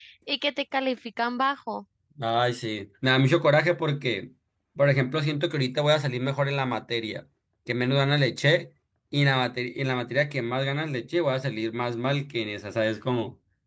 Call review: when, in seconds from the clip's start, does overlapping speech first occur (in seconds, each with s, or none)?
none